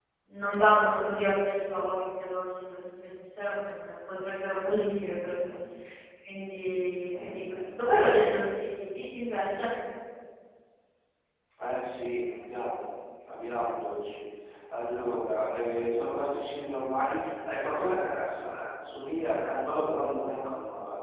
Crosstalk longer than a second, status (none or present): none